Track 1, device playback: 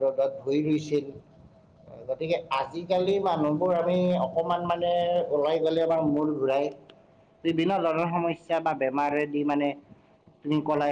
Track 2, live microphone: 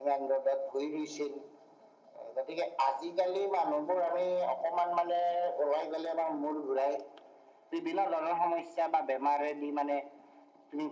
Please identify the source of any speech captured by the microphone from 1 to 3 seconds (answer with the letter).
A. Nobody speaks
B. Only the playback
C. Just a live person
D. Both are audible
B